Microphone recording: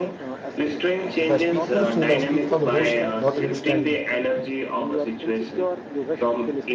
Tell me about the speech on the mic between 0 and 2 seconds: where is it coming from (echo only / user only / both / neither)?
both